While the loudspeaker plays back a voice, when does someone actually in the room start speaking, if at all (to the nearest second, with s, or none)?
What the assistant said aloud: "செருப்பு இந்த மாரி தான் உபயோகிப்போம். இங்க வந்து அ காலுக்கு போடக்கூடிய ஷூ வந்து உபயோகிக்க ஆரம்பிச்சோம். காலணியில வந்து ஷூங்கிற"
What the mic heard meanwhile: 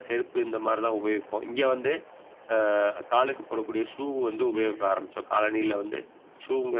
5 s